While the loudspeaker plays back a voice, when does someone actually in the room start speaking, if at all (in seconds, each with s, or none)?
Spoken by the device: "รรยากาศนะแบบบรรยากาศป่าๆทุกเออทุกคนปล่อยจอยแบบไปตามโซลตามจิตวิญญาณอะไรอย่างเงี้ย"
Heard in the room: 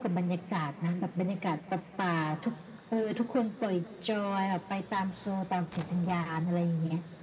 none